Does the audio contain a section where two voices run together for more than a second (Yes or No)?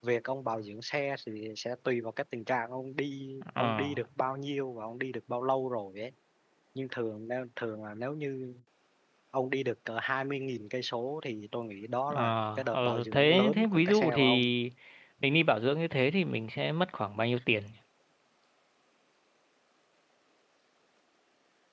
Yes